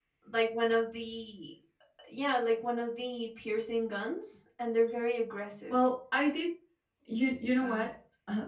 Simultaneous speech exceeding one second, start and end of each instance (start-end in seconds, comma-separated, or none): none